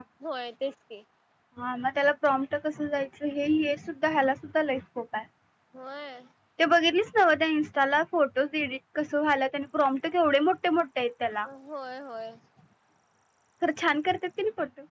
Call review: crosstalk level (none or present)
none